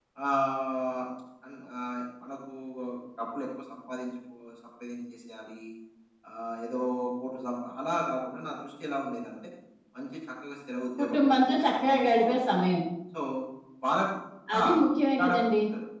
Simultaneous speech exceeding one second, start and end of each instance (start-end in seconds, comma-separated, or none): 11.0-12.6